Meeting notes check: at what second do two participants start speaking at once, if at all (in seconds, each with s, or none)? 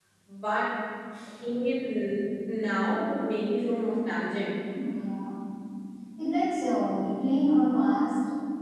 none